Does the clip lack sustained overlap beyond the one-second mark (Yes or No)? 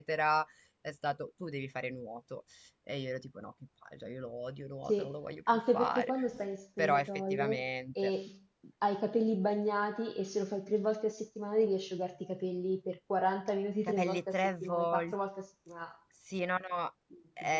No